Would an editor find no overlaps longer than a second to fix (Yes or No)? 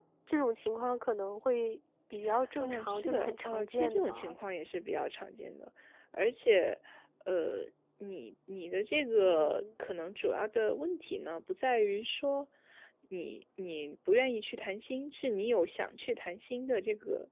No